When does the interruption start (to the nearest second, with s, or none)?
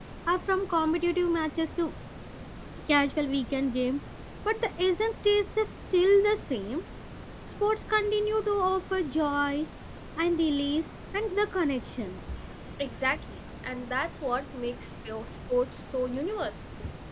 none